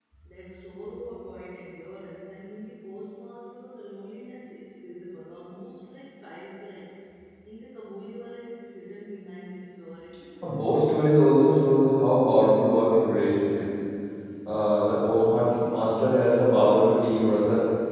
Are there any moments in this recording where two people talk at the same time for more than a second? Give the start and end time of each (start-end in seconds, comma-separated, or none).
none